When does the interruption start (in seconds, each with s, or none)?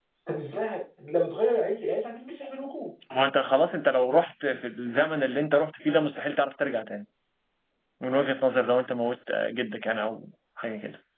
none